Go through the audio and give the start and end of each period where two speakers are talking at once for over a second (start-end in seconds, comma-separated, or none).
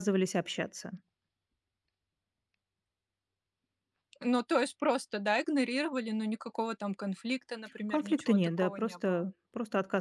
7.9-9.3